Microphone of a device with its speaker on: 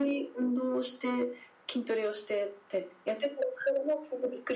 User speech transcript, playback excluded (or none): none